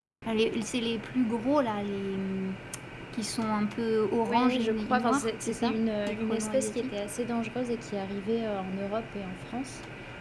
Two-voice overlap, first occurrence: 4 s

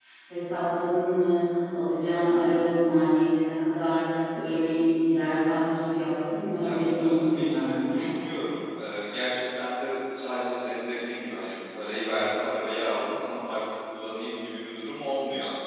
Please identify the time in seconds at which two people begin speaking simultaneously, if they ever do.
7 s

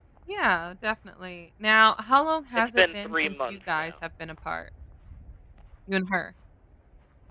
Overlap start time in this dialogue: 3 s

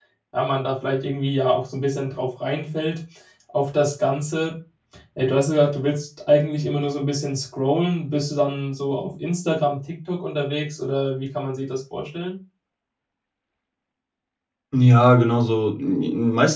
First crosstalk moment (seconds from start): none

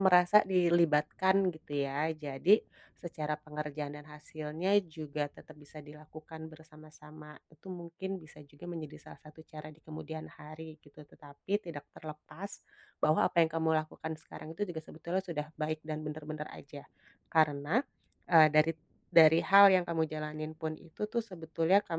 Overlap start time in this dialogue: none

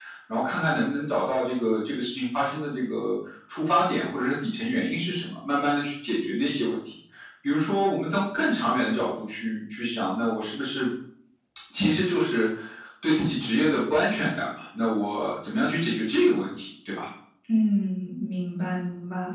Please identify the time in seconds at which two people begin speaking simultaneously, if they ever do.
none

